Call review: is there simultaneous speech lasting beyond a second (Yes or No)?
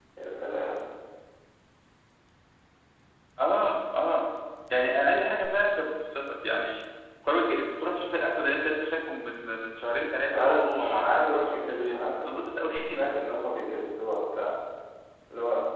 Yes